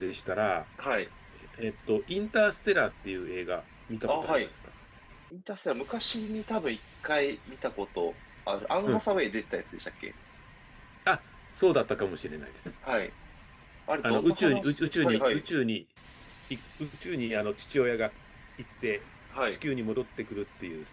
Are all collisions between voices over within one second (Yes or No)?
No